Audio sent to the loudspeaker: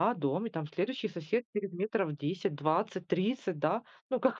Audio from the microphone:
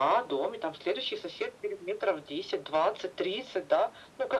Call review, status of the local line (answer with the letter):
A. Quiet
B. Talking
A